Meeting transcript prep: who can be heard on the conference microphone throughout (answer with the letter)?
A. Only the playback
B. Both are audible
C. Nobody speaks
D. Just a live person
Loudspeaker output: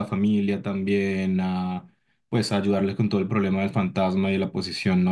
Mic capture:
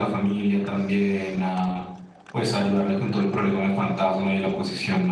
A